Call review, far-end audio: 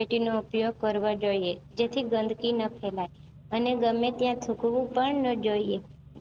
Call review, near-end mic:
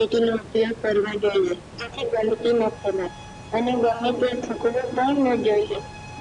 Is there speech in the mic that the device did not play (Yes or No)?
No